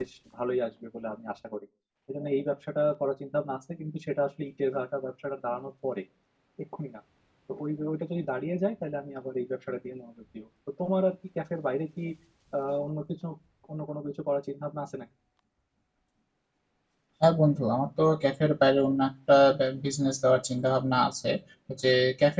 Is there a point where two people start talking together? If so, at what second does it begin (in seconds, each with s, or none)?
none